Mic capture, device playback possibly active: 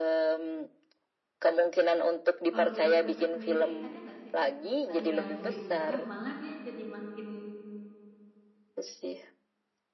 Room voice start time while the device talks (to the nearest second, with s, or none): 3 s